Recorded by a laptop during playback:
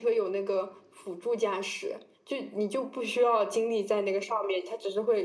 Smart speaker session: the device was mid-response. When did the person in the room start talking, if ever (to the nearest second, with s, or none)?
none